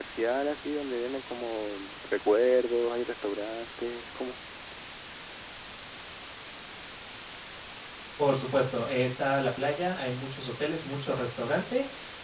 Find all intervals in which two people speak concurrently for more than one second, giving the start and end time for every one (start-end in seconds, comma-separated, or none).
none